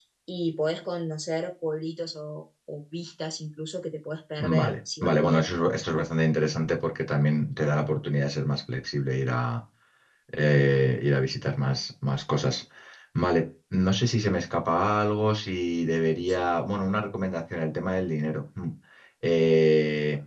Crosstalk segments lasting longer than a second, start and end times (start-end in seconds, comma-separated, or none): 4.4-5.7